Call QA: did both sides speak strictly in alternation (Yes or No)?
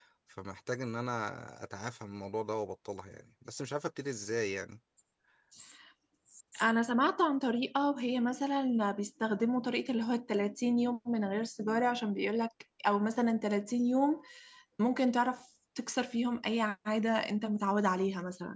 Yes